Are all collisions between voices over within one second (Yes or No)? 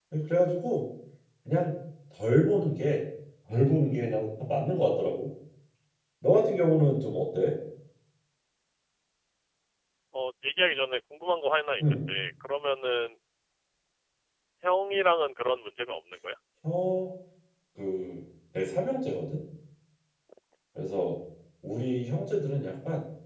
Yes